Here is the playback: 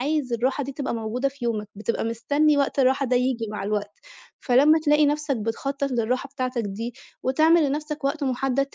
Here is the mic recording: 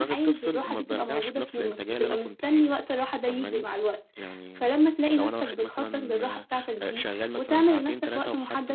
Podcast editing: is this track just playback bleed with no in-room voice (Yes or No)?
No